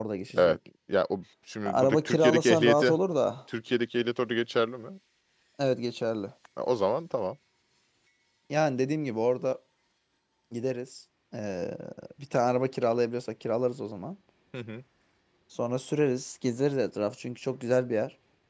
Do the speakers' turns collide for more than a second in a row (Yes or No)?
Yes